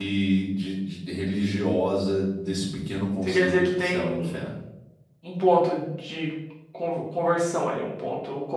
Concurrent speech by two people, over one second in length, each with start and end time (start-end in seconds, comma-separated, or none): 3.2-4.5